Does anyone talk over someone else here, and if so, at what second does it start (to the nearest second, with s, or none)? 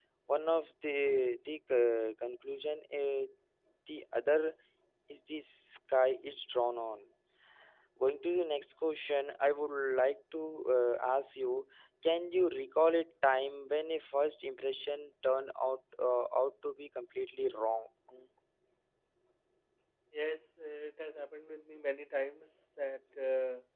none